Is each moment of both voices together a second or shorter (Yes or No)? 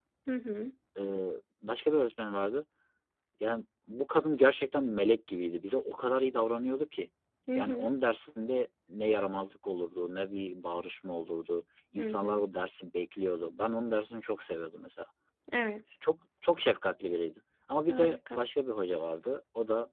Yes